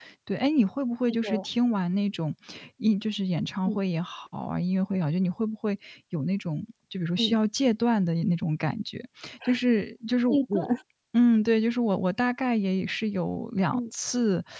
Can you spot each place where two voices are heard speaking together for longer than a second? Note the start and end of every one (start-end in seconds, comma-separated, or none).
none